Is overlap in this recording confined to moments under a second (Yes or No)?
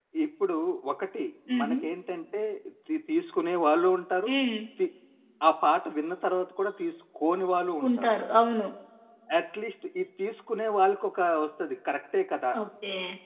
Yes